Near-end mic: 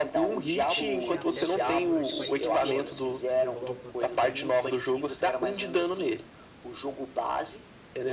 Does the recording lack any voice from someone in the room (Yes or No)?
No